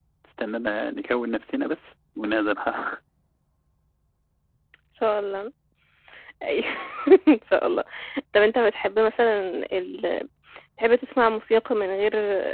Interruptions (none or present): none